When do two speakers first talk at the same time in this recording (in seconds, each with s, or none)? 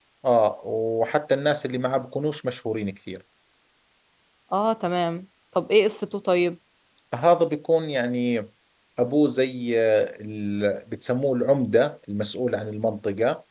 none